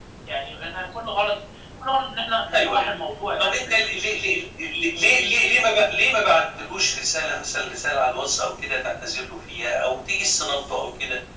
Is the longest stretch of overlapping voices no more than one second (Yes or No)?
Yes